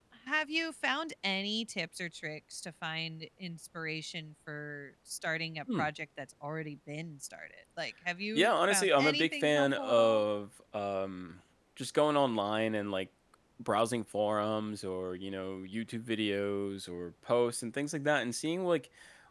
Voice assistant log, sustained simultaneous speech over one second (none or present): present